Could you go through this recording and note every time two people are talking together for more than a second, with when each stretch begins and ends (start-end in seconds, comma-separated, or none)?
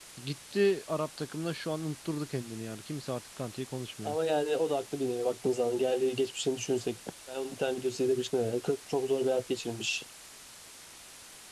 none